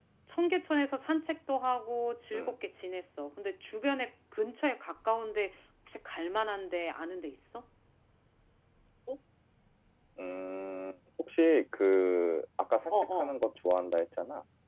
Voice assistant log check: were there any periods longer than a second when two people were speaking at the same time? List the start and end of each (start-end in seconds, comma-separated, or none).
none